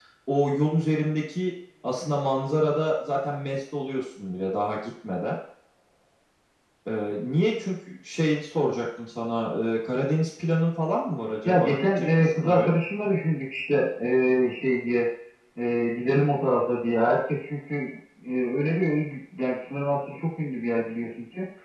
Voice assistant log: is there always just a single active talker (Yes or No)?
No